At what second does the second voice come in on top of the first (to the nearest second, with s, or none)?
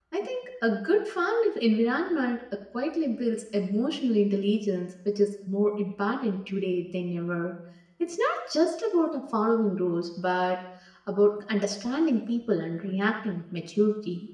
none